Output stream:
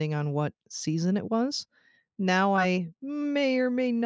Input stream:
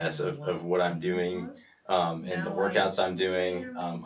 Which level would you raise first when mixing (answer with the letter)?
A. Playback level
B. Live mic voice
A